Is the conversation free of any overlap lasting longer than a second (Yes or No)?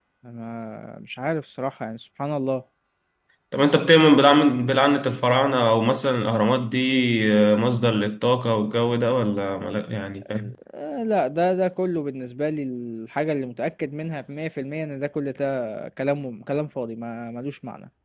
Yes